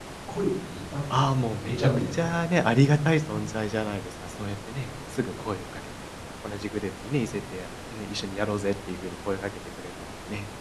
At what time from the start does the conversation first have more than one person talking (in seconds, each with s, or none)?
1.1 s